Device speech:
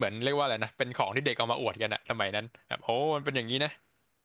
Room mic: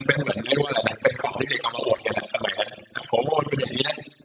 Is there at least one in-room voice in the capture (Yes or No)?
No